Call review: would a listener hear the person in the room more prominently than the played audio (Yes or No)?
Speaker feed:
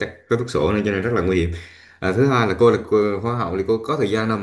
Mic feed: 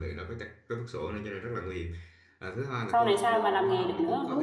Yes